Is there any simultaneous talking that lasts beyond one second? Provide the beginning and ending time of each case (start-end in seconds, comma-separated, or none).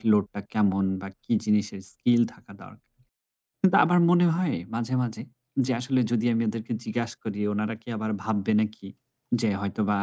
none